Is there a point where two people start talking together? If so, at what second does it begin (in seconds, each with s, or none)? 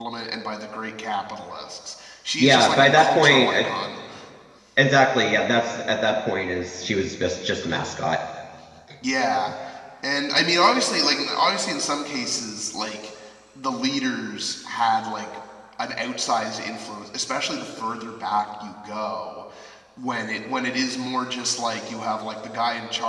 2.4 s